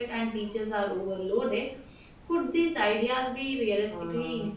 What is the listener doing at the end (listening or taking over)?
taking over